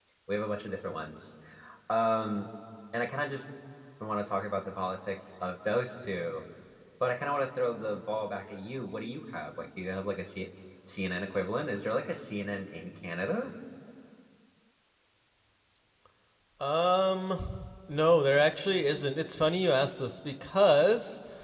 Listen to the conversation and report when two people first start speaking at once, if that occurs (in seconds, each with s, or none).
none